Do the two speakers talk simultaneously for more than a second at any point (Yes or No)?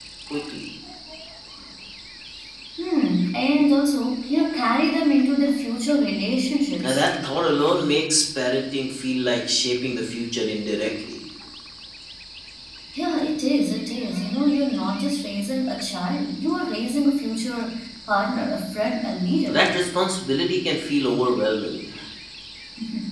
No